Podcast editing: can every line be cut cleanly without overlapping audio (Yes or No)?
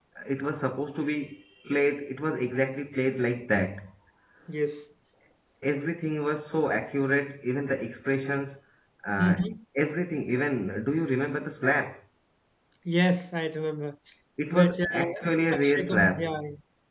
No